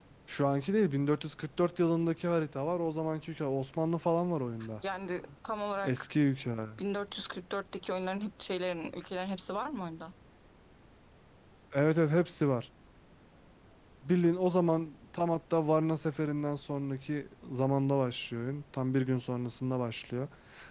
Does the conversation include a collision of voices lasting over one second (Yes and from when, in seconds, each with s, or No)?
No